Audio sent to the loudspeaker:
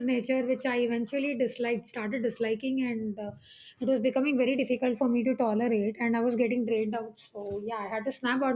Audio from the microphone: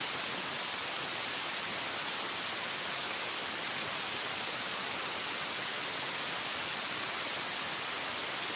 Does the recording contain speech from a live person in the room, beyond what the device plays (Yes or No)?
No